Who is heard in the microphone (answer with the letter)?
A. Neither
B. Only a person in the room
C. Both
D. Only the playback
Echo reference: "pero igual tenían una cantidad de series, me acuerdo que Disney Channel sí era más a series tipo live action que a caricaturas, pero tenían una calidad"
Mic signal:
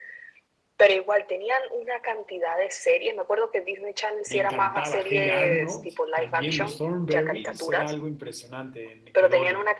C